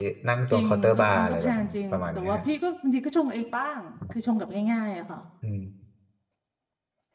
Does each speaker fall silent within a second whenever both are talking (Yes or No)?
No